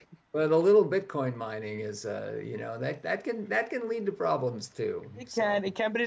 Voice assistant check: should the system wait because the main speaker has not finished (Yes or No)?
No